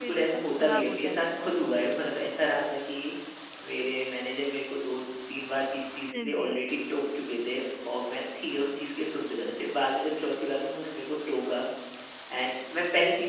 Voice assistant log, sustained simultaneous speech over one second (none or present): present